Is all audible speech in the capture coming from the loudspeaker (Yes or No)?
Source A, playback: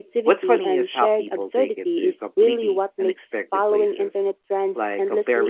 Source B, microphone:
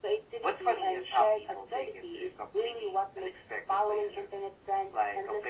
Yes